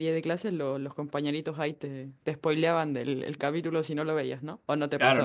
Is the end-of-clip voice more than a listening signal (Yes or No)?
Yes